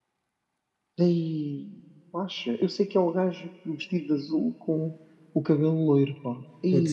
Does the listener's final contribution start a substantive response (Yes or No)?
Yes